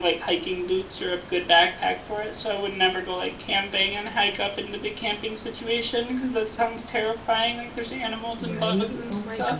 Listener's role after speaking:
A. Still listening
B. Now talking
B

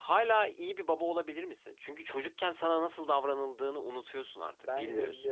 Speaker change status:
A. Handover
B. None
A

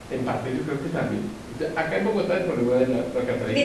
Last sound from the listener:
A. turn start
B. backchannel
A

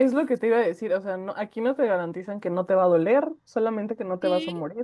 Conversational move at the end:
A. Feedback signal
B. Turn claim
B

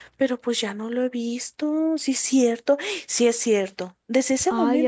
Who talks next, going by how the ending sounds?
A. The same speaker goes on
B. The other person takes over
A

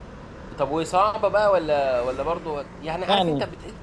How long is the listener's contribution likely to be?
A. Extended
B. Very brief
B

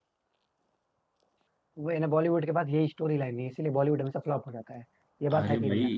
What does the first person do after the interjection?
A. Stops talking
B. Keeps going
A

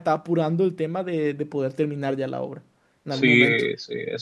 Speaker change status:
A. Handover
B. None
A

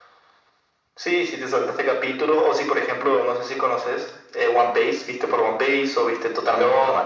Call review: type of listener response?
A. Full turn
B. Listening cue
A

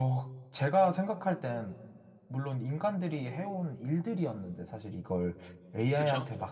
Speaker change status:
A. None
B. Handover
A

